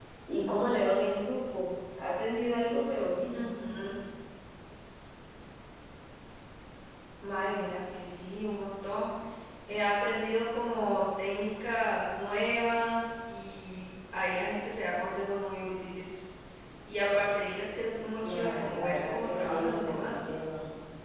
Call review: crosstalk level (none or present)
present